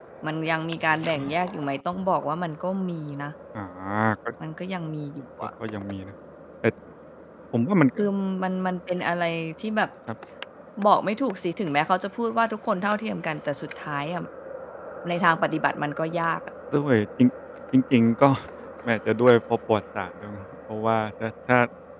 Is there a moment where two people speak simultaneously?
No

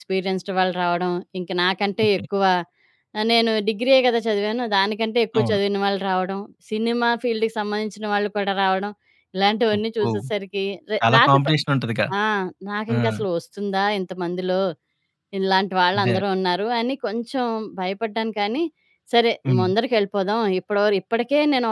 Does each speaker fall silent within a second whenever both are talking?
Yes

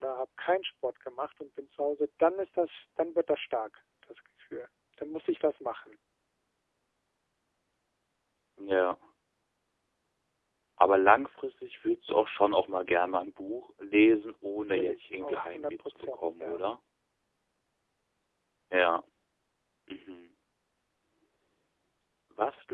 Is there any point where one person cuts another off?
Yes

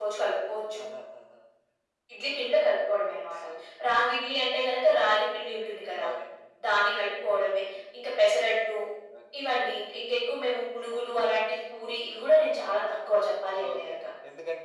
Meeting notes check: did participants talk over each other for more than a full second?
No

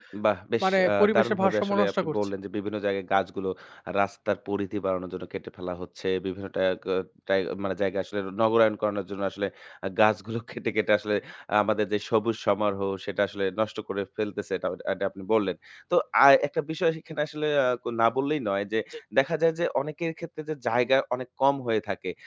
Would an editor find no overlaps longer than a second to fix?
No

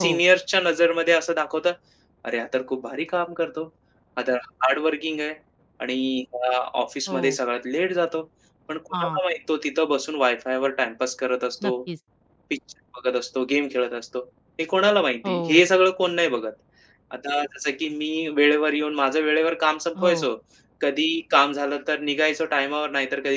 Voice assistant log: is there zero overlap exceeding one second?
Yes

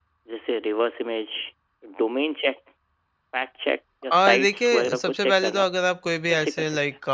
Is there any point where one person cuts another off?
Yes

